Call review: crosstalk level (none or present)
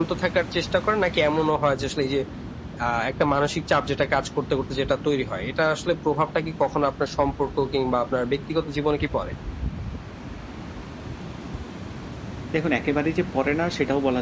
none